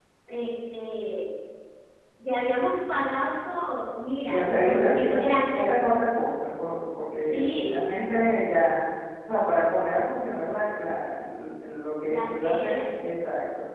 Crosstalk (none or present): present